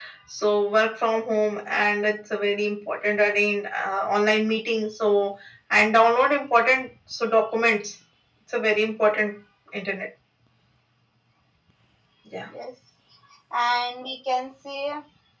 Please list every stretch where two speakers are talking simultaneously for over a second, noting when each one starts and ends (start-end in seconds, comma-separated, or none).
none